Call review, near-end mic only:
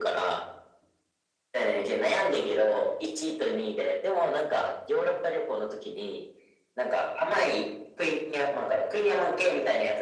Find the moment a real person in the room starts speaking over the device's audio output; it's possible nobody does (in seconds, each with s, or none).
none